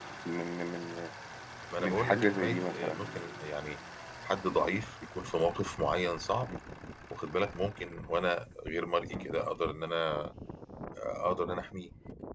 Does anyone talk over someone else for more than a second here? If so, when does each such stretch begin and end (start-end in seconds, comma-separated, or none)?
1.8-3.0